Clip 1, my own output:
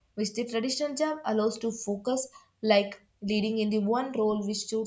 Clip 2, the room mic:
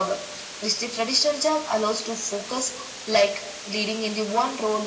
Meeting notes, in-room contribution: none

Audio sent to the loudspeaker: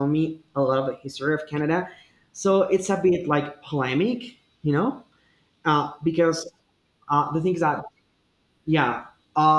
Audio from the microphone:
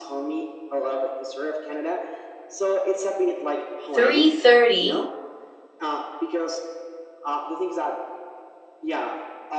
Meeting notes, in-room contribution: present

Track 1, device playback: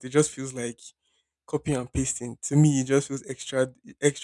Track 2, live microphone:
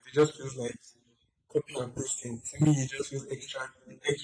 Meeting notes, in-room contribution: none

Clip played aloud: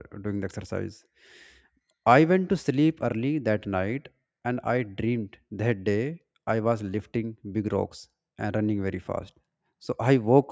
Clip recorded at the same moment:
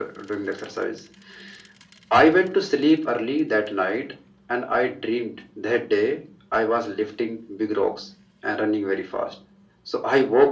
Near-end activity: none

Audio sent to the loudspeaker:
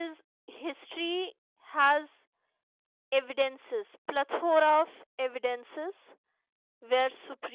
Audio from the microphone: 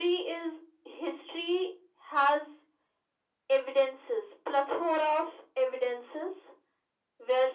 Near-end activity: none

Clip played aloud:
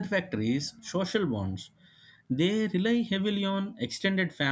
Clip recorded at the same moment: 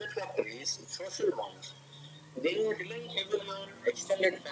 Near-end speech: none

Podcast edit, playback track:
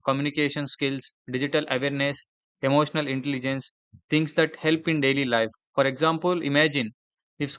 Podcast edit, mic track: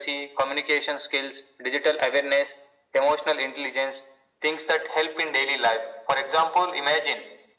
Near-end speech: none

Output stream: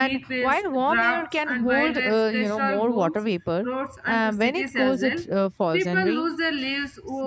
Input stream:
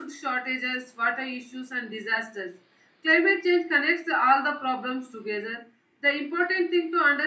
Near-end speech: present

